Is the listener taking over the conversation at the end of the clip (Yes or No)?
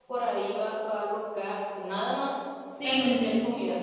No